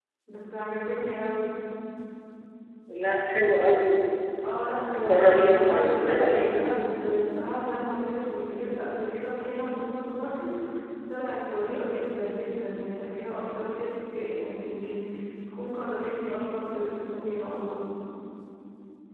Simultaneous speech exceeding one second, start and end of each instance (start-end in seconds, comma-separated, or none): 5.0-6.5